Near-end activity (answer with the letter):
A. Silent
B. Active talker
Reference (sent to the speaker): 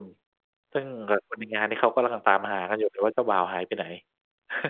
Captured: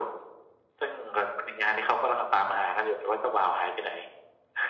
A